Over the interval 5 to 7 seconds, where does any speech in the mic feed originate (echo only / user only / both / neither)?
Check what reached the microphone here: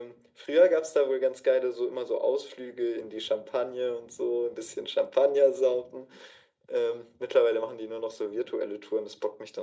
echo only